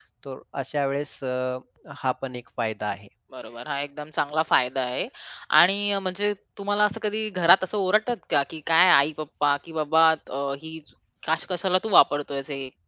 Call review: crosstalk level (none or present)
none